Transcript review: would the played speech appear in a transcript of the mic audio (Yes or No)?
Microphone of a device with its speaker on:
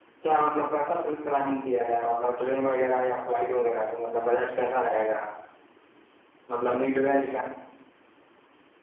Yes